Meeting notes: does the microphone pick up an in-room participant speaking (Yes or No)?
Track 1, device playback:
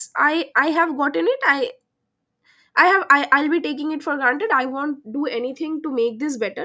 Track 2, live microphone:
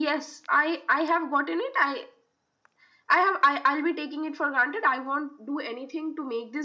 No